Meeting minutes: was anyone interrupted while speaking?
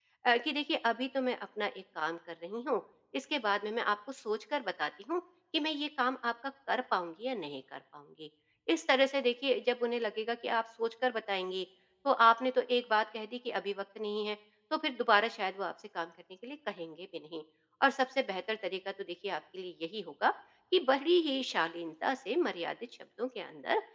No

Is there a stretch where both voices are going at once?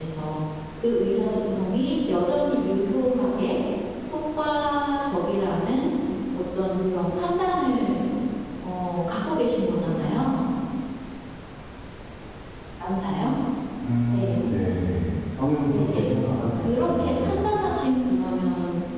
Yes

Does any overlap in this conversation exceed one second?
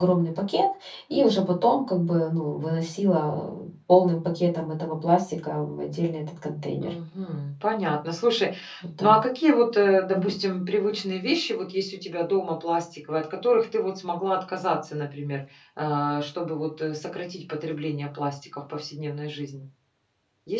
No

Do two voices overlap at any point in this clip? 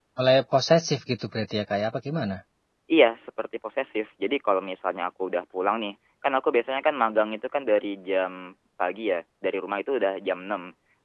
No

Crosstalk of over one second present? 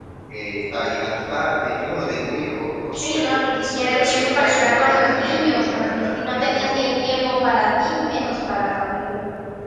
Yes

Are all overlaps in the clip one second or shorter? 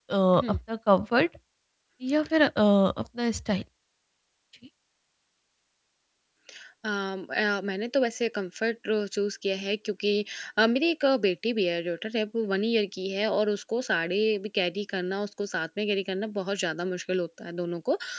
Yes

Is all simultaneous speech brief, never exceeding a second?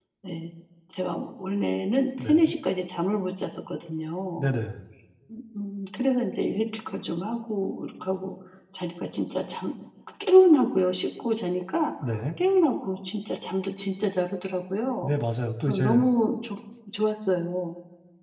Yes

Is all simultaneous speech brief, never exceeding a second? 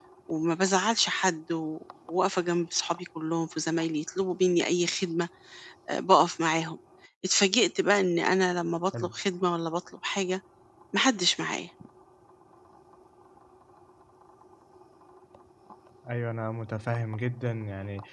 Yes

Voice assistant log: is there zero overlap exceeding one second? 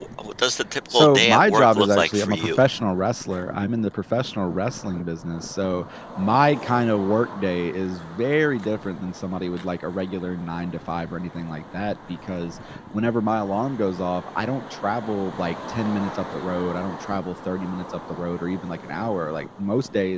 No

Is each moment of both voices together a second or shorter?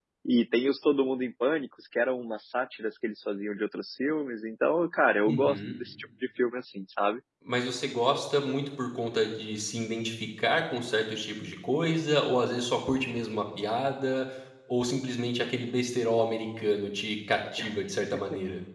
Yes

